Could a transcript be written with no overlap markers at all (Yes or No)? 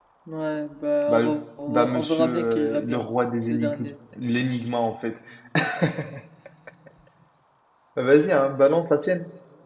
No